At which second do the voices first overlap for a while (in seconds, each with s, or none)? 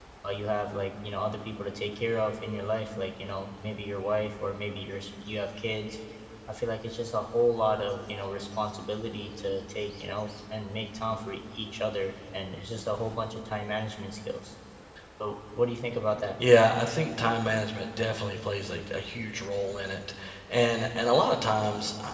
none